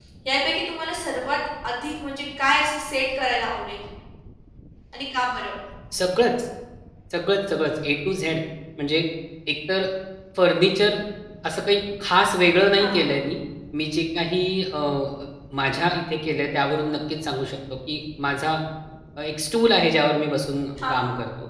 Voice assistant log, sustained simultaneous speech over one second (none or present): none